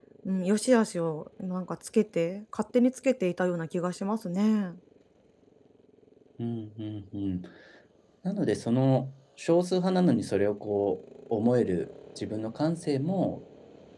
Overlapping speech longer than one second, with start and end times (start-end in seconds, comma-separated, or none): none